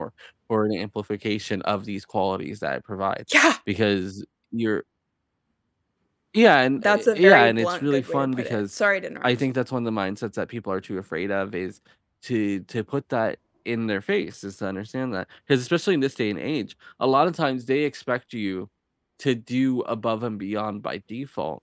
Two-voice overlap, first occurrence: 6.8 s

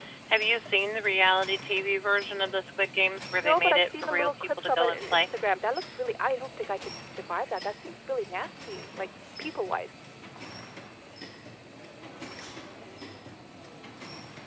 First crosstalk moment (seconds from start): 3.4 s

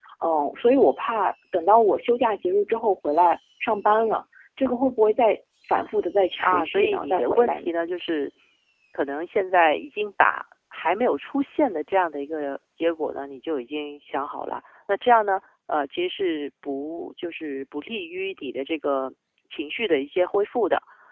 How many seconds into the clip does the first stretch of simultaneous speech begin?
6.4 s

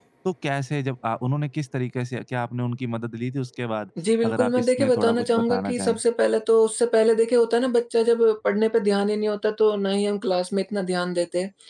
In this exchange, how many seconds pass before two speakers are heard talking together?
4.2 s

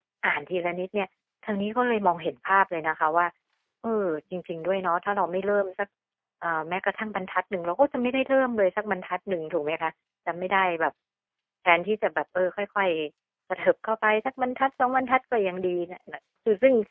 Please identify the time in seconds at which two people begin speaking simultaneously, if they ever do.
none

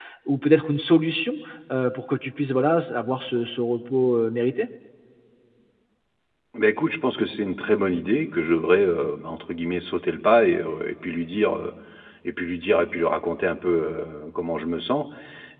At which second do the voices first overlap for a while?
none

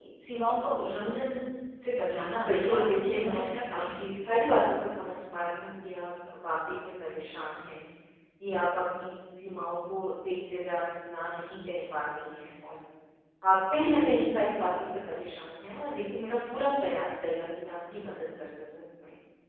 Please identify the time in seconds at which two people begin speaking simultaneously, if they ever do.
2.5 s

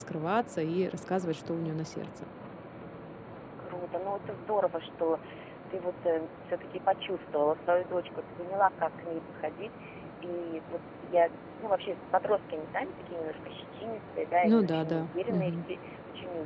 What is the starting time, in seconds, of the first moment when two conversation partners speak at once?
14.4 s

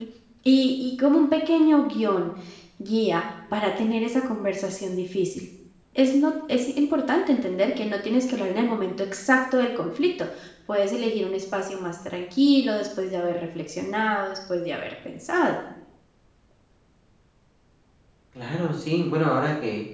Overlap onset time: none

